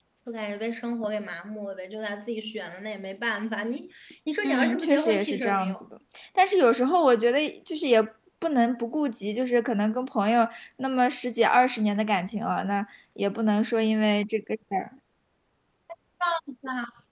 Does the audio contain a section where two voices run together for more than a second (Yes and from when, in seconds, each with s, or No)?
Yes, from 4.4 s